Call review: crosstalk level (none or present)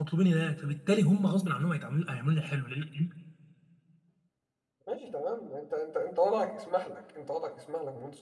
none